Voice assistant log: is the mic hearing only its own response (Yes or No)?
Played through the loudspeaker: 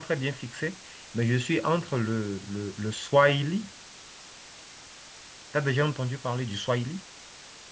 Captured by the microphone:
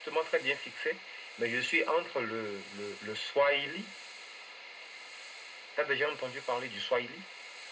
Yes